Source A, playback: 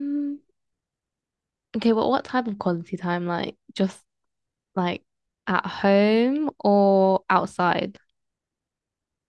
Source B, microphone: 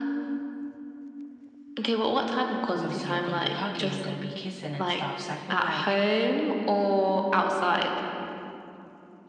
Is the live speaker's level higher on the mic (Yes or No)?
No